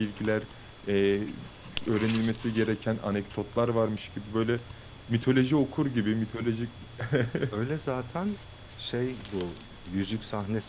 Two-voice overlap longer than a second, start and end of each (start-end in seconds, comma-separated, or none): none